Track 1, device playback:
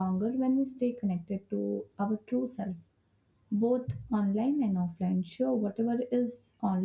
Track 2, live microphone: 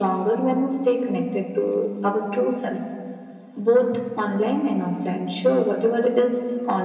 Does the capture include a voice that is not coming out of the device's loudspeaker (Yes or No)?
No